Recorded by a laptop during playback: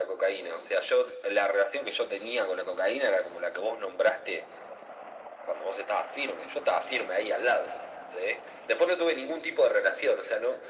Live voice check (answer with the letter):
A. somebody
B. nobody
B